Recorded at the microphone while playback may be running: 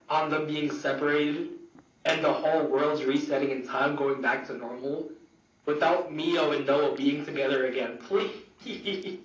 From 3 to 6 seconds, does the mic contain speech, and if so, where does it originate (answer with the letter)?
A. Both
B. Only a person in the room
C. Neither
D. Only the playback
D